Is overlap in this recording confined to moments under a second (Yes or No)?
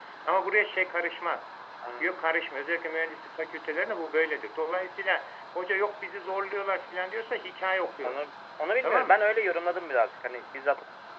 Yes